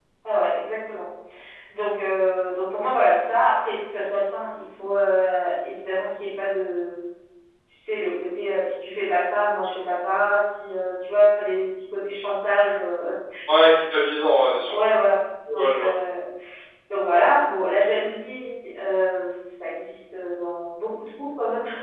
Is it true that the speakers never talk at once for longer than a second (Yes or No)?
Yes